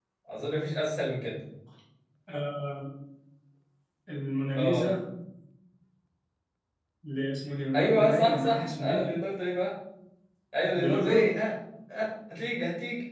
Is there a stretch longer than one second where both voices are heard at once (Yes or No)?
Yes